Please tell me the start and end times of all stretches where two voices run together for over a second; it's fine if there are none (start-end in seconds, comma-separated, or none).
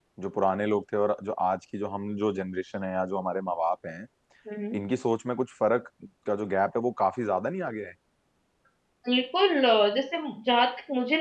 none